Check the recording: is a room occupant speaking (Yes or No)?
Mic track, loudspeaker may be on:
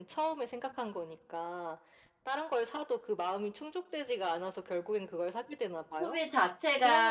Yes